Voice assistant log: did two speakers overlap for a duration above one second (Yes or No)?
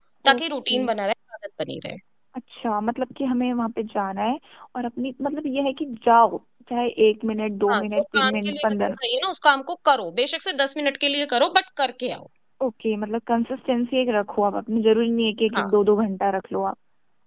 Yes